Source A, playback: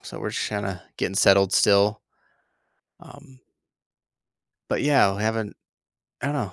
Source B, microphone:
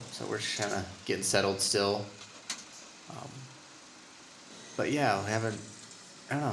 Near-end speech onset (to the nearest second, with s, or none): none